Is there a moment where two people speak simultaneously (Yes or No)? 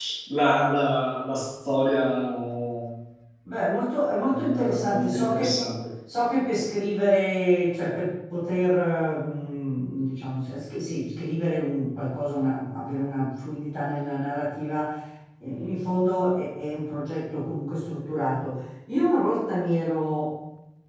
Yes